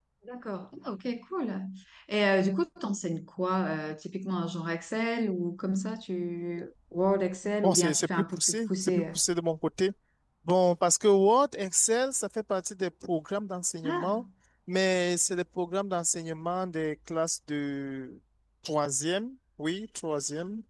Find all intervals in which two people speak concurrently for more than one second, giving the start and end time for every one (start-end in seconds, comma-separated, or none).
7.6-9.0